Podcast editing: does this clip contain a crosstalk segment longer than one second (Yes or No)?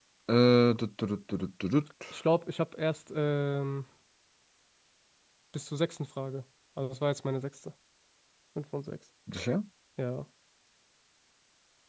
No